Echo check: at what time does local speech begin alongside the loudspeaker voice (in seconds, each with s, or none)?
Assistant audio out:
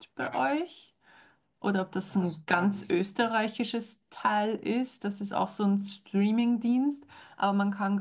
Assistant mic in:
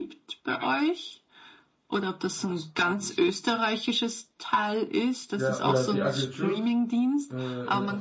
5.4 s